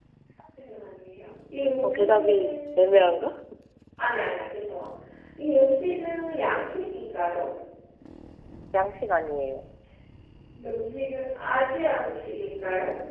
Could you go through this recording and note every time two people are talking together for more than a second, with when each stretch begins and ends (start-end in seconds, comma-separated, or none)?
1.8-3.2